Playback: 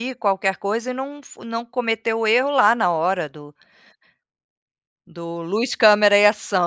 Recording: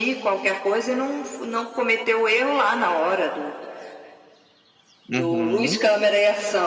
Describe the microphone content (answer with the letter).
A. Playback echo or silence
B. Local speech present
B